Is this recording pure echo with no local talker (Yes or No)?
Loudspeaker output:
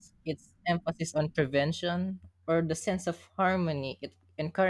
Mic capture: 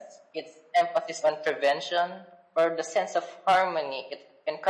Yes